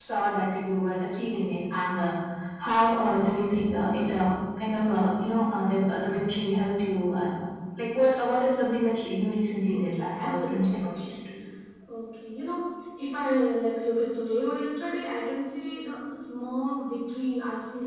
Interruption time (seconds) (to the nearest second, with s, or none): 10 s